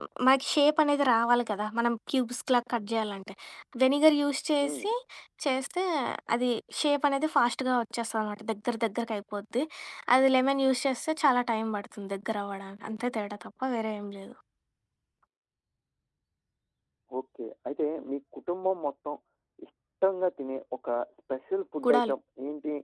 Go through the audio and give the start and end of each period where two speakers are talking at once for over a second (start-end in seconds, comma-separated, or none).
none